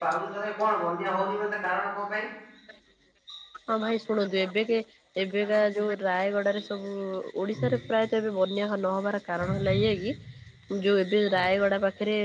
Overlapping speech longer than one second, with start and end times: none

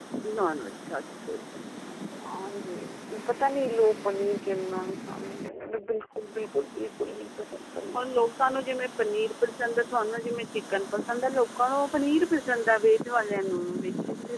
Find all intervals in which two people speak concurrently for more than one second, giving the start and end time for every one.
none

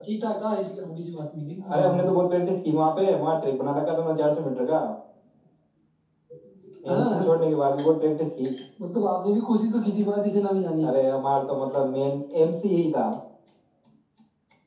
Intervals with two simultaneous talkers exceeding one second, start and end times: none

